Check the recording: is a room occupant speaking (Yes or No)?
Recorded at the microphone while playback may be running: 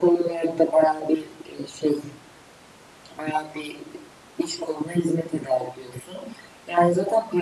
No